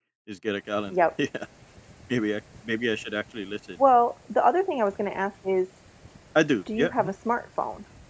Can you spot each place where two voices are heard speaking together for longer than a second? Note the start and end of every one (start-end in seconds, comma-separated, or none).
none